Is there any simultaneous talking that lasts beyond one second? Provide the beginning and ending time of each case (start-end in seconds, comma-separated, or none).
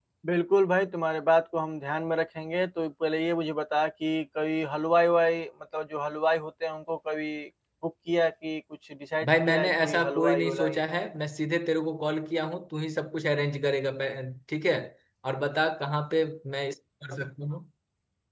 9.2-10.8